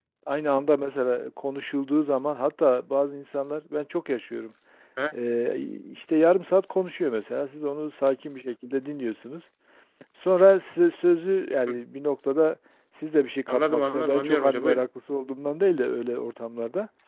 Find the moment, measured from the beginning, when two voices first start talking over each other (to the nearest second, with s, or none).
13 s